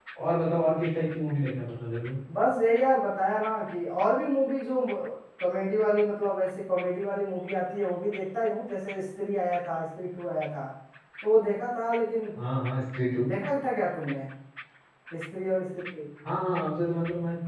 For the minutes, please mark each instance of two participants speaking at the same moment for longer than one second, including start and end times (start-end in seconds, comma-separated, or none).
none